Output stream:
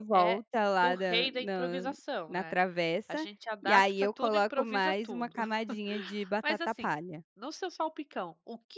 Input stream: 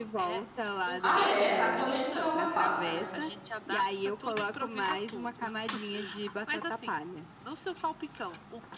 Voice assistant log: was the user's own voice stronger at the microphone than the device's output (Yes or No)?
Yes